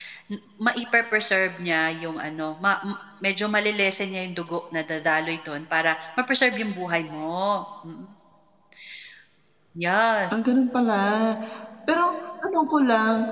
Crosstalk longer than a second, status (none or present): none